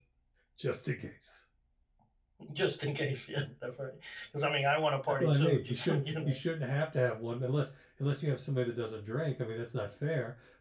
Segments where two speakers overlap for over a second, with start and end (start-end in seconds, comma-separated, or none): 5.1-6.3